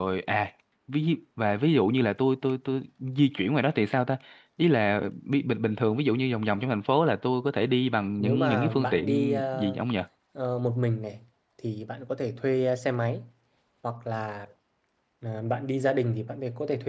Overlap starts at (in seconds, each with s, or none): 8.2 s